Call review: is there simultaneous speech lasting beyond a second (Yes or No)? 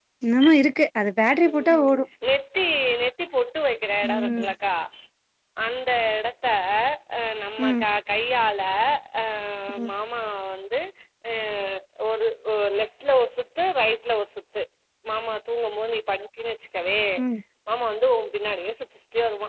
No